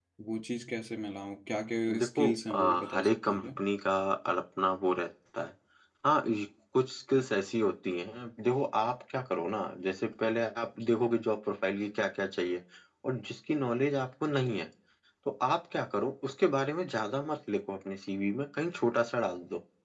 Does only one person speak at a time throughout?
No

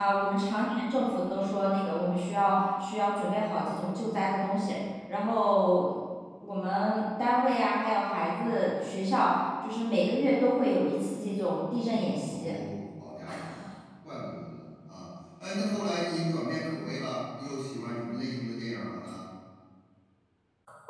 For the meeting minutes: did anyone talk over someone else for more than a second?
No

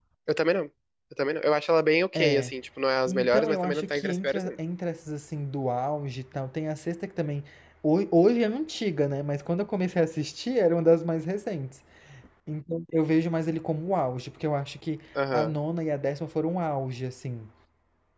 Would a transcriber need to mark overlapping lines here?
Yes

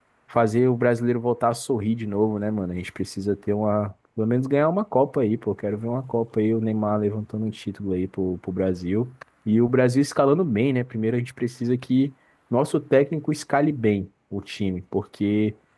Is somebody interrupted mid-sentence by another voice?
No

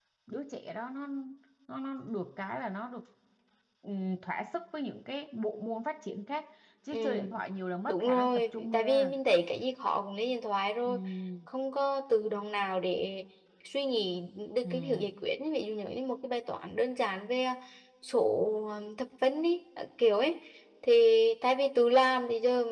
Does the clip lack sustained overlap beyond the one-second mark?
No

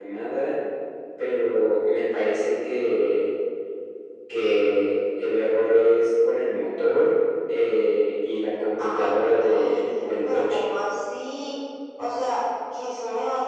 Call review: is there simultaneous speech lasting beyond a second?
Yes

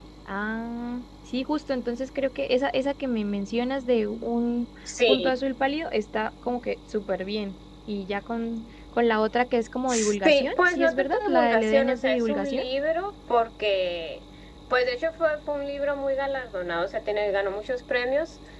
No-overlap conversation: No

